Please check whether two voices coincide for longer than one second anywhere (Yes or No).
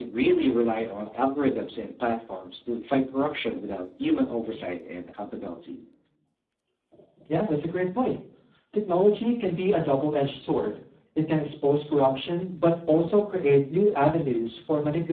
No